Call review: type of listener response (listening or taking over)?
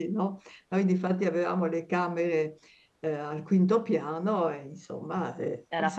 listening